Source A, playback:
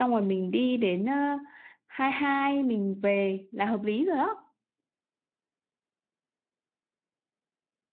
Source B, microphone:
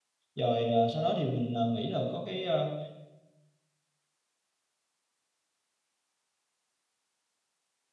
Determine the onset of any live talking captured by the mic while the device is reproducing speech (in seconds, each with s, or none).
0.3 s